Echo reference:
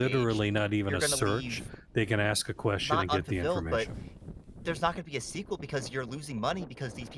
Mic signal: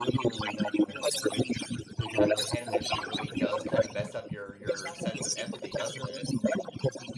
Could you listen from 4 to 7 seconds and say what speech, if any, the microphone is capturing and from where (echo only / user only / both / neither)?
both